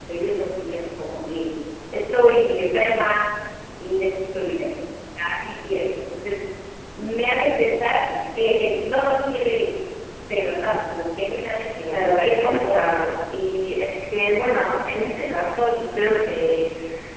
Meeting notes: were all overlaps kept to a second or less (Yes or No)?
No